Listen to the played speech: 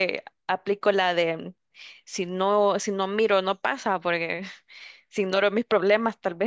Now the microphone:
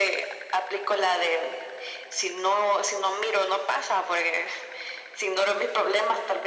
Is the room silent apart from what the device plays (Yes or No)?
Yes